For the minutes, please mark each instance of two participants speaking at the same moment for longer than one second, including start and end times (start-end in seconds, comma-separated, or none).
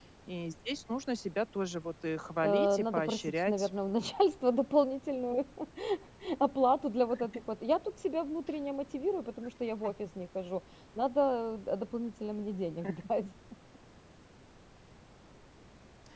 2.4-3.7